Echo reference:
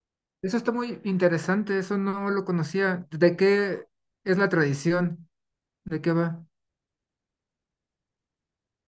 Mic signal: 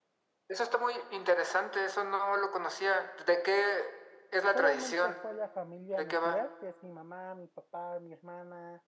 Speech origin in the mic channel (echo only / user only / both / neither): both